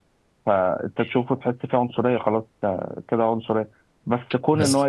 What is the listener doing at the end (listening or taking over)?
listening